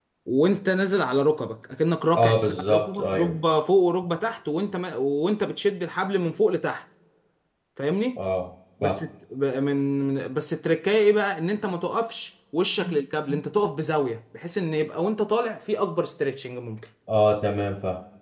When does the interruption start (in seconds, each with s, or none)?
2.1 s